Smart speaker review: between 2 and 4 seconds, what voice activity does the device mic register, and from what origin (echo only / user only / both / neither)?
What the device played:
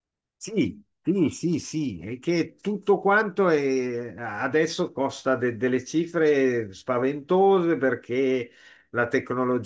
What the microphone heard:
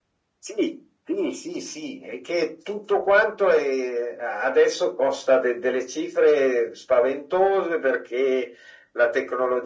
echo only